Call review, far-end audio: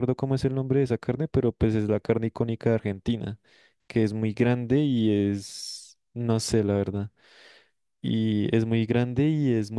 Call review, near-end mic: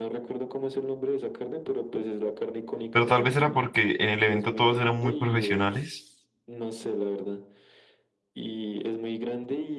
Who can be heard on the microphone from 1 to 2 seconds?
echo only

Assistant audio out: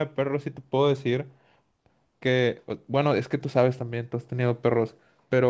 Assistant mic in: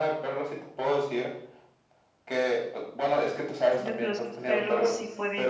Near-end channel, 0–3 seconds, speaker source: echo only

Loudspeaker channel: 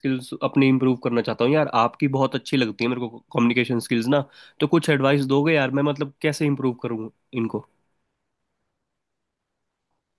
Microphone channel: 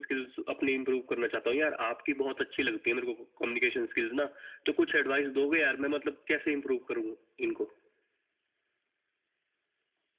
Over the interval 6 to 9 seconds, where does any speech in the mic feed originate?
echo only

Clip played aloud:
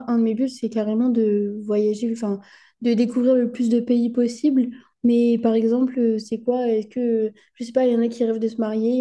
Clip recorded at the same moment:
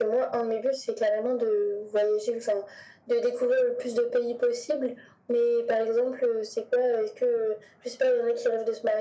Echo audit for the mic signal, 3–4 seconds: echo only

